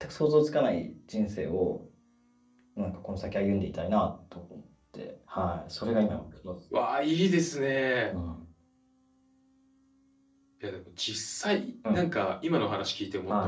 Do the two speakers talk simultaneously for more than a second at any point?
No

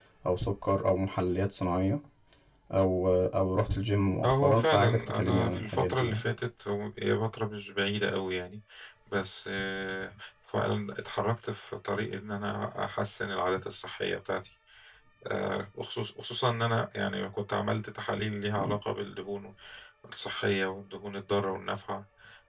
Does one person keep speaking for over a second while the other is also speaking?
Yes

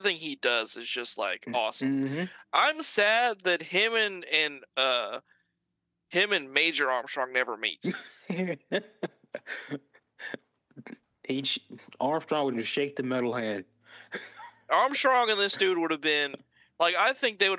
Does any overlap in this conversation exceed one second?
No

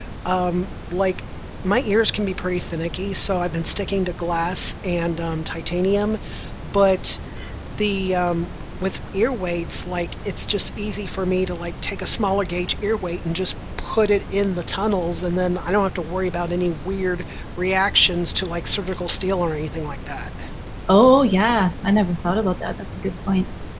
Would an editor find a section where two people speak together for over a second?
No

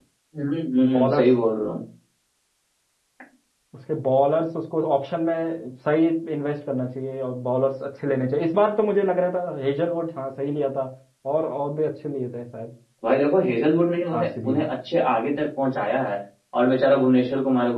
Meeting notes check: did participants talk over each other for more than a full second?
No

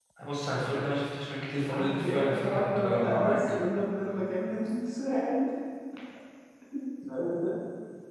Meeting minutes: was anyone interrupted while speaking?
Yes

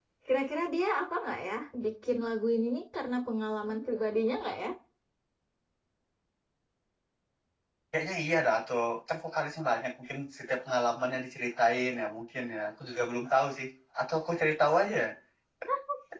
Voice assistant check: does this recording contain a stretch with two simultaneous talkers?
No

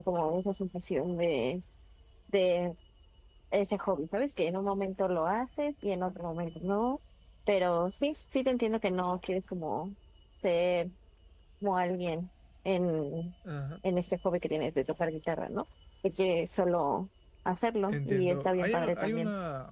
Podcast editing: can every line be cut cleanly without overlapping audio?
No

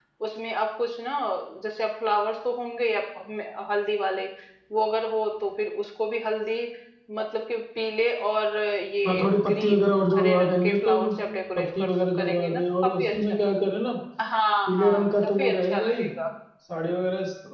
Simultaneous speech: Yes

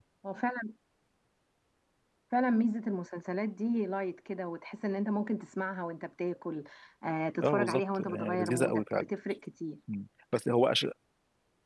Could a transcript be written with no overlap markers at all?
No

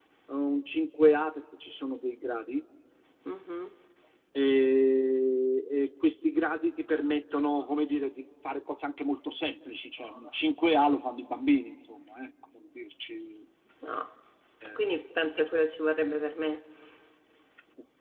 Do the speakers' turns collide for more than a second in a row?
No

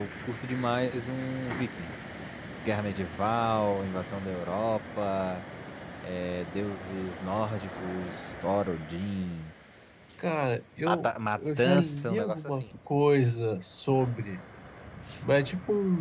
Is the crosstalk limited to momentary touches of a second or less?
No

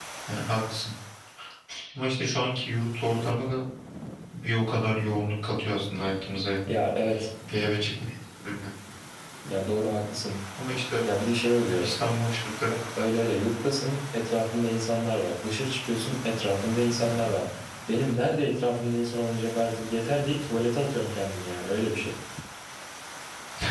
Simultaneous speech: No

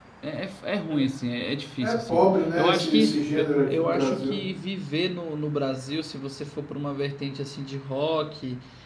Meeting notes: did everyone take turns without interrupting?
No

